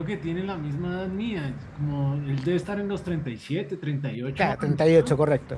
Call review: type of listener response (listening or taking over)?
taking over